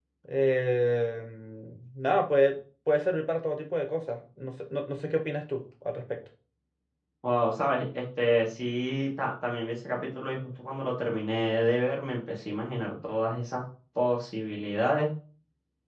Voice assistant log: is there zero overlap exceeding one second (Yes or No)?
Yes